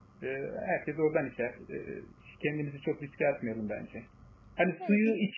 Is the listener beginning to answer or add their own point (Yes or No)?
No